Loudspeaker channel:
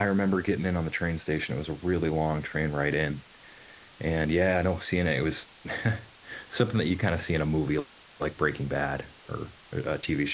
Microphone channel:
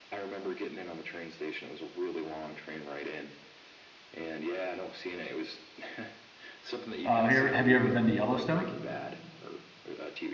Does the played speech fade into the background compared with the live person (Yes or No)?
Yes